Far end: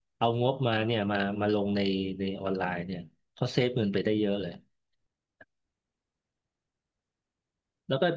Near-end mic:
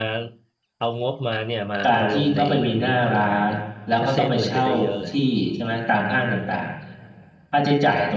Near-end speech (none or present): present